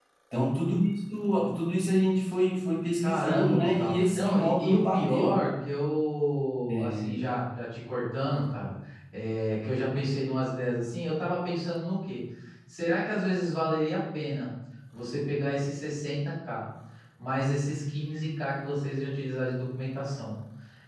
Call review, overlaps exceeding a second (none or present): present